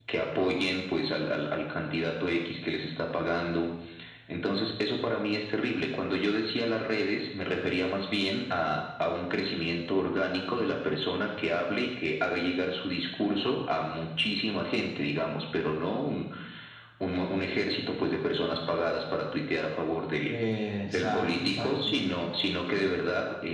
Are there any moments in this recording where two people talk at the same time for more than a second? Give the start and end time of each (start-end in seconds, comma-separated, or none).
20.9-22.1